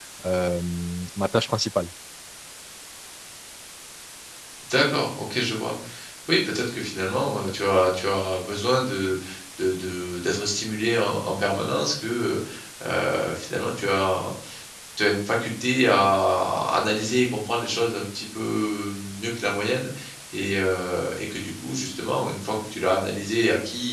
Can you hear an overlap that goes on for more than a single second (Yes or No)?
No